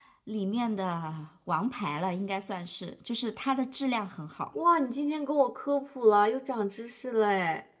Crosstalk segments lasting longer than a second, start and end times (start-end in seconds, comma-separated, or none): none